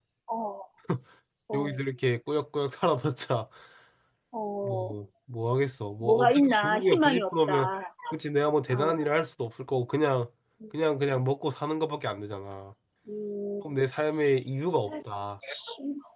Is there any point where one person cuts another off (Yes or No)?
Yes